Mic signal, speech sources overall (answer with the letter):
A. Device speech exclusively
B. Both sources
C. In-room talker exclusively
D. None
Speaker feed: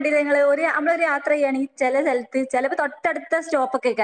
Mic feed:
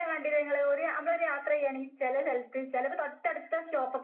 A